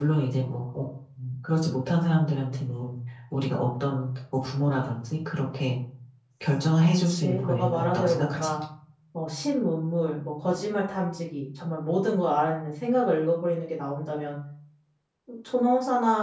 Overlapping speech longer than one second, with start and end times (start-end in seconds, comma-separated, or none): 7.0-8.5